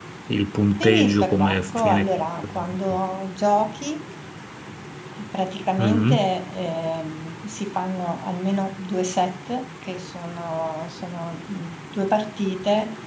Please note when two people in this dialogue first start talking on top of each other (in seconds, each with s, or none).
0.8 s